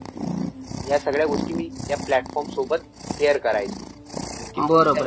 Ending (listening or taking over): taking over